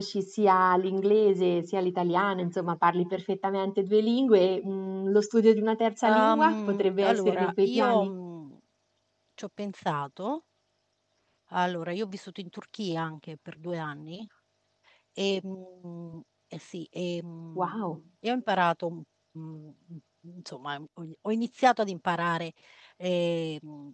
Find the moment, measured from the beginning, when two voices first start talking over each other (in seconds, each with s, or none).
6.0 s